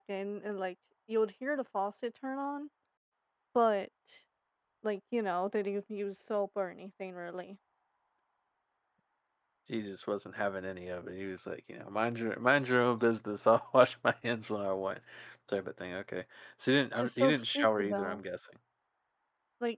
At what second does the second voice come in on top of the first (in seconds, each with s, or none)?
17.0 s